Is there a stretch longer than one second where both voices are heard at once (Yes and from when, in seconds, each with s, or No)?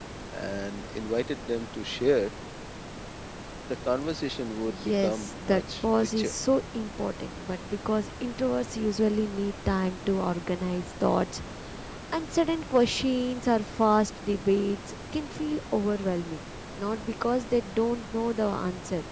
Yes, from 4.7 s